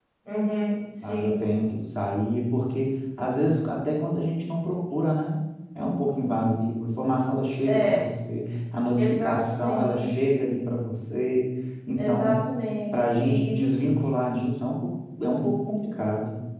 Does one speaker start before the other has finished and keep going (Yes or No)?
Yes